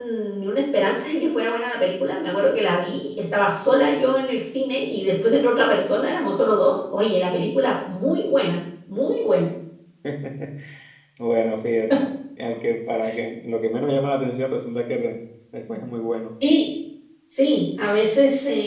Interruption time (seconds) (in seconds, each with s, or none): none